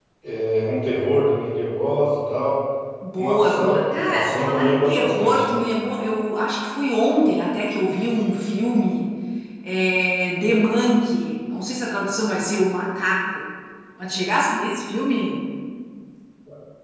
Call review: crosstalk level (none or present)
present